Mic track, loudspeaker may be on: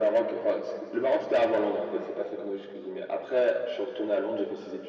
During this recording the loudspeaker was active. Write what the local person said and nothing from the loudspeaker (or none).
none